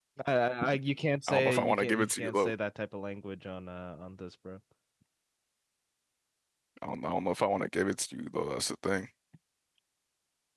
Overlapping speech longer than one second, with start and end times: 1.3-2.5

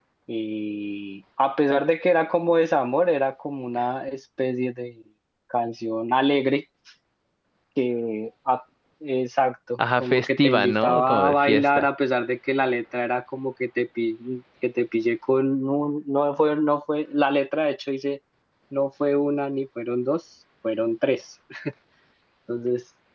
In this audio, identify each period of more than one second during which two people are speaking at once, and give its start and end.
9.8-11.9

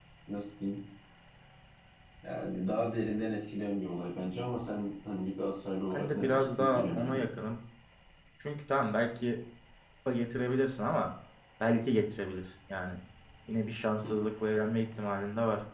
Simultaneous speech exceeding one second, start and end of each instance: 5.9-7.2

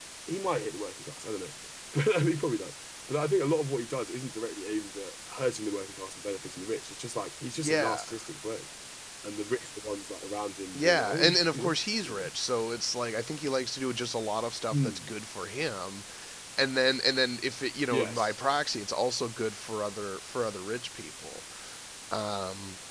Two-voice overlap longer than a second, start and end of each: 10.8-12.2

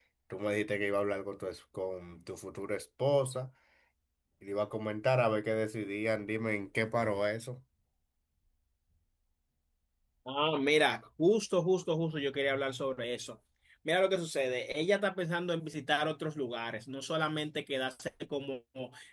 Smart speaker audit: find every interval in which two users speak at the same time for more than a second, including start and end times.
none

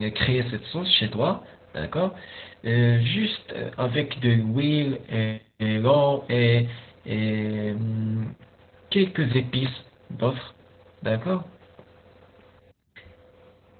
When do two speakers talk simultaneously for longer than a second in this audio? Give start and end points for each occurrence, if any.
none

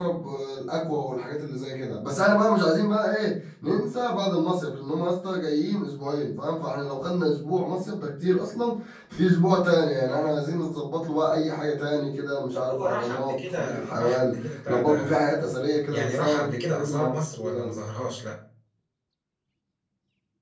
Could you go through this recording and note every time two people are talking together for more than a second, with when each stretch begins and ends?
12.6-14.3, 15.9-17.7

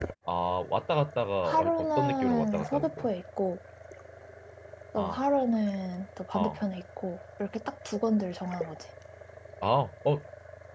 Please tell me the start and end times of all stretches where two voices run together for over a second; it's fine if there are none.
1.4-3.1

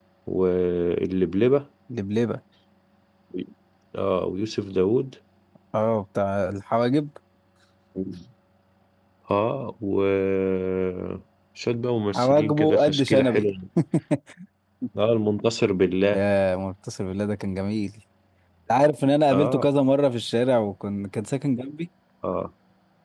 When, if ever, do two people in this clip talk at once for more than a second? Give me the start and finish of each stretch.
12.2-13.5

